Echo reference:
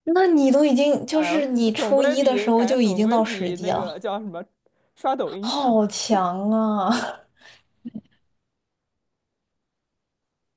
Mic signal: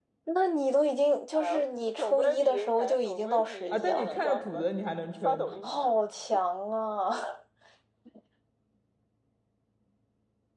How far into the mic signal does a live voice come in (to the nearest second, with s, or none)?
4 s